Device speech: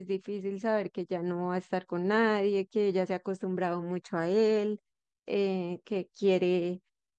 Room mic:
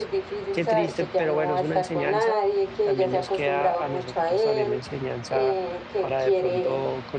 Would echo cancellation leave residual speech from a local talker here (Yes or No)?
Yes